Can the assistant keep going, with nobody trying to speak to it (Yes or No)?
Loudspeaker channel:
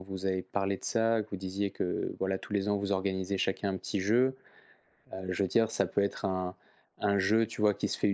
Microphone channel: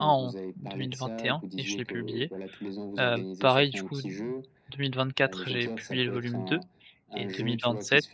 No